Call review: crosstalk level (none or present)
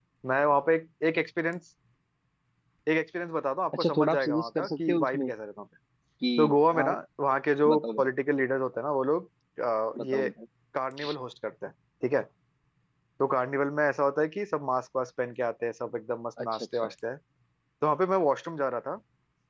present